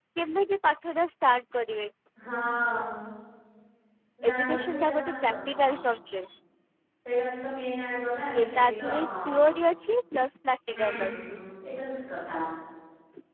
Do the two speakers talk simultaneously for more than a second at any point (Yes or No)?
Yes